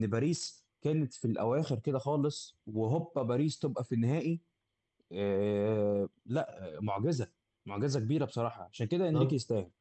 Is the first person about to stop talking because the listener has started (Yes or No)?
Yes